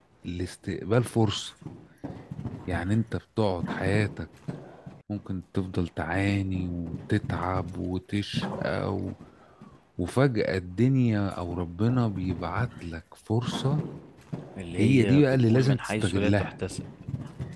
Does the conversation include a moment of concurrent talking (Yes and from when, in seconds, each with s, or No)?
Yes, from 14.8 s